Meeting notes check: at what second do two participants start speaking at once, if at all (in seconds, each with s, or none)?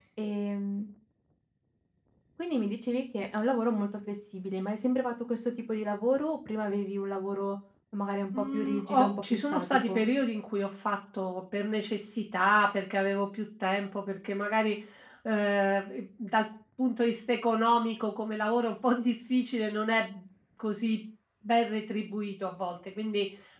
8.3 s